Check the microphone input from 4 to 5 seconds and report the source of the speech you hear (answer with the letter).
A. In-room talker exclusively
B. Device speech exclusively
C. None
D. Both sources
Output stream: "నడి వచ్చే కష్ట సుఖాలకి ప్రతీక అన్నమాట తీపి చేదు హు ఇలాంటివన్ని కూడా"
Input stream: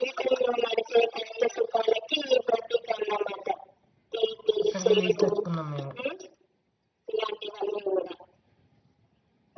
D